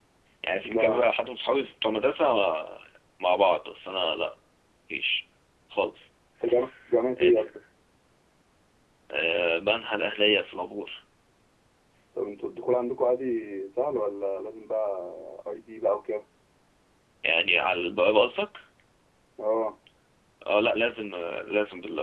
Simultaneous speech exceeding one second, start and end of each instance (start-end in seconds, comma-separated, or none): none